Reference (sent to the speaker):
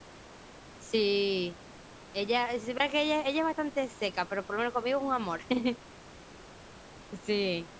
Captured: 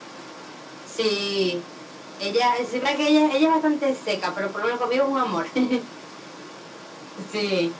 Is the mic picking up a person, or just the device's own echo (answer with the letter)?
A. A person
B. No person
B